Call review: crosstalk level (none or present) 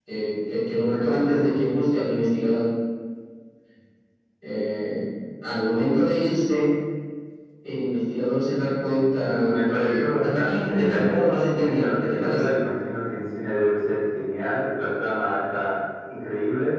present